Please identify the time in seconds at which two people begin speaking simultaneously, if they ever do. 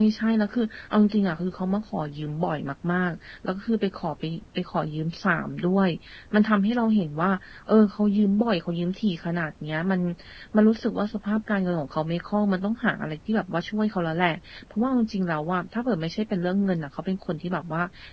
none

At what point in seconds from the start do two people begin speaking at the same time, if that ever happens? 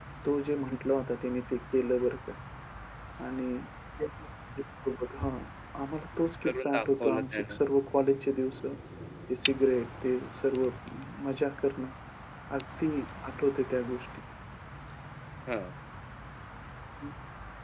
6 s

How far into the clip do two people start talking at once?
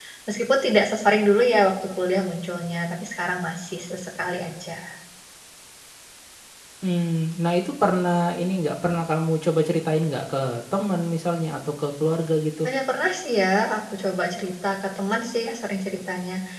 none

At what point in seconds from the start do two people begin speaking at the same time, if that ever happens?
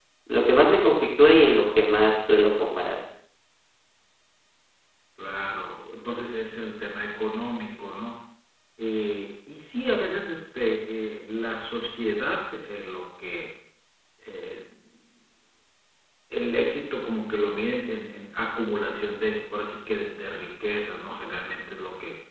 none

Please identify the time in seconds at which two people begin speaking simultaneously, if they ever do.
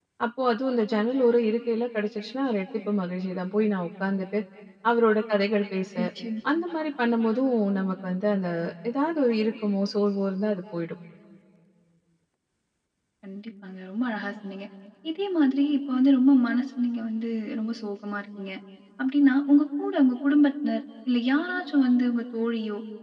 none

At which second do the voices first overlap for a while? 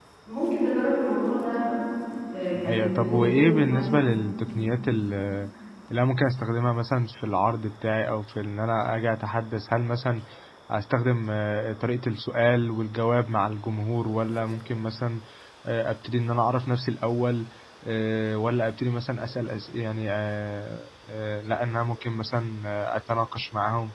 3 s

